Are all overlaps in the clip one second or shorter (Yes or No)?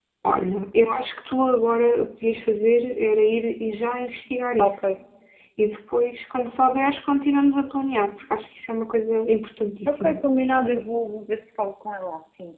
Yes